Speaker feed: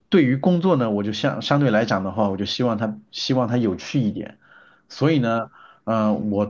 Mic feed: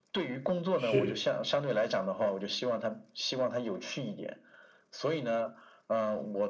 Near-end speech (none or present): present